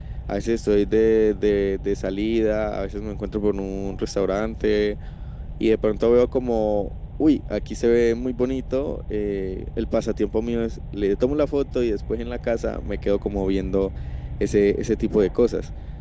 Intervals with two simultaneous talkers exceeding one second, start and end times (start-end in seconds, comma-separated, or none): none